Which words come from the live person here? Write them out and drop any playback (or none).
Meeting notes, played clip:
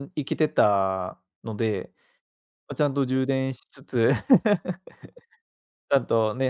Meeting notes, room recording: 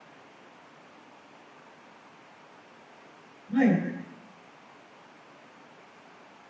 はい。